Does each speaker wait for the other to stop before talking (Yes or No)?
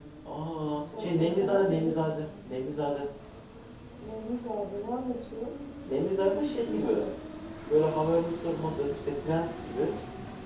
No